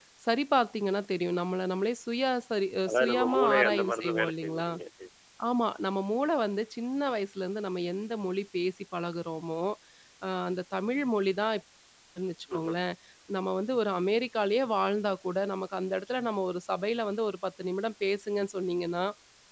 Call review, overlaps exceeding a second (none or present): present